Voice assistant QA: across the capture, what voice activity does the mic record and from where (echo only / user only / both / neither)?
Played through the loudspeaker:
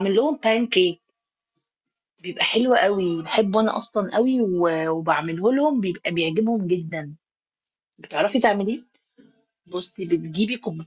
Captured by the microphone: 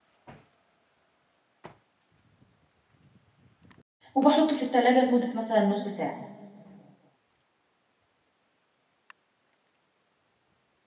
user only